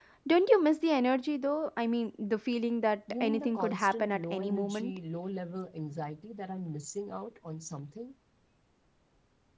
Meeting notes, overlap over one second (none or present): present